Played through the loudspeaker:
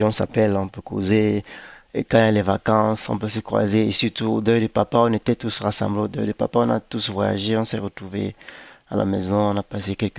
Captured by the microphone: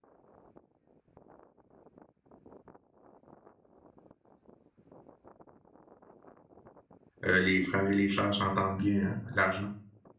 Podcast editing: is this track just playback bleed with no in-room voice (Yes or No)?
No